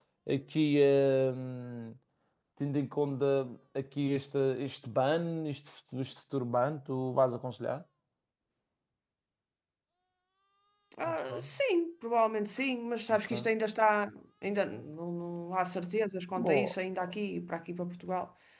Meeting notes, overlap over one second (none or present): none